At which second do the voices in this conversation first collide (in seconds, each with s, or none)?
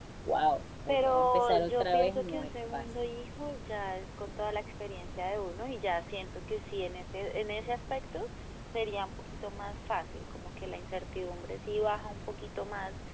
0.9 s